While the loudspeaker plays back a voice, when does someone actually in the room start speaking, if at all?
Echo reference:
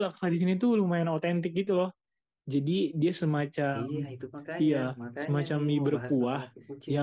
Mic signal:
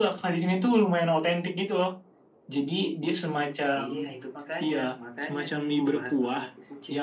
none

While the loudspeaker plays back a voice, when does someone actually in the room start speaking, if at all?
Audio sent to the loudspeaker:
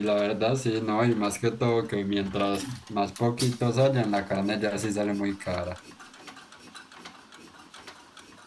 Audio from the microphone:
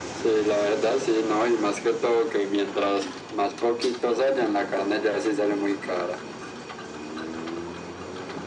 none

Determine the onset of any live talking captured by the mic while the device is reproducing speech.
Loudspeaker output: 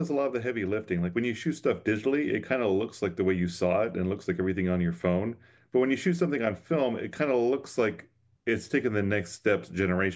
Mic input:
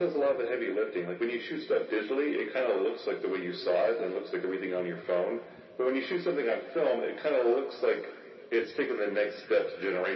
none

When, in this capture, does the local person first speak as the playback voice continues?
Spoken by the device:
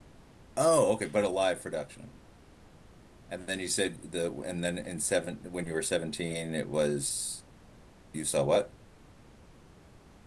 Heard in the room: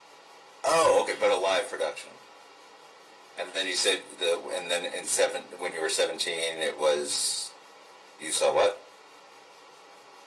none

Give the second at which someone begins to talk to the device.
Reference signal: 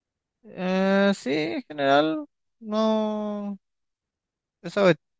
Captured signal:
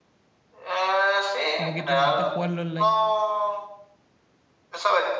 1.5 s

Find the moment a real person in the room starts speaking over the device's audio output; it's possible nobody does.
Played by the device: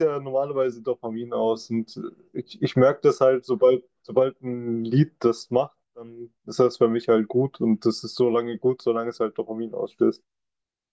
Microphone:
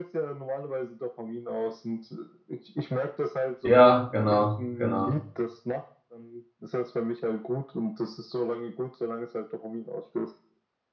3.6 s

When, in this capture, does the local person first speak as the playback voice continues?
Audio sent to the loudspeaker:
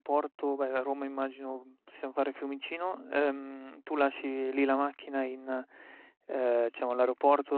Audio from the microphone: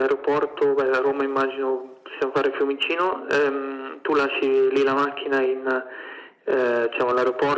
none

